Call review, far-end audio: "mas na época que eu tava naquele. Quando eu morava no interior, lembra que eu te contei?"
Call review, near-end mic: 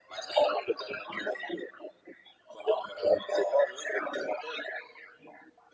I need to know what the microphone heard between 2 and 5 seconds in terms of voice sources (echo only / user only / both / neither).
echo only